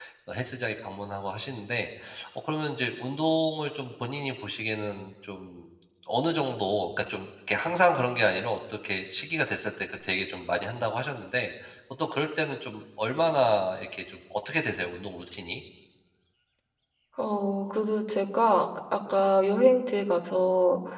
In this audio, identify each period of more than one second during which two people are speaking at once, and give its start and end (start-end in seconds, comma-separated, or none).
none